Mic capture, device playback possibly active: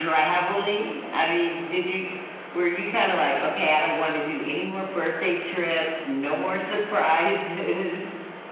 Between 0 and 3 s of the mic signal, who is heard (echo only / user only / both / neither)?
echo only